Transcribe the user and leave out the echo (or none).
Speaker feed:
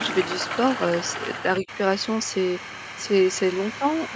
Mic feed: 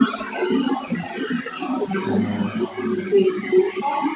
Heu,